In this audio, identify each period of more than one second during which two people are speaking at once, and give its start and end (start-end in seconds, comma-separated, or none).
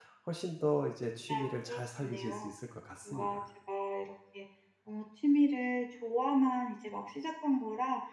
1.3-2.5